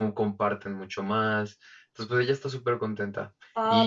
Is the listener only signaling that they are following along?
No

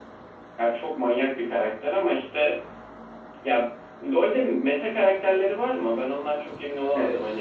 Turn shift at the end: Yes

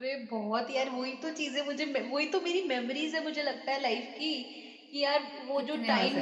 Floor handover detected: No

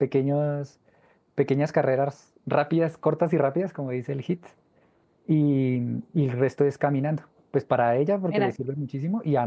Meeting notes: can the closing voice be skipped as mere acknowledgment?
Yes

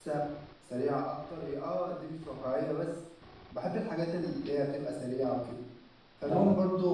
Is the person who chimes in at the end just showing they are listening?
Yes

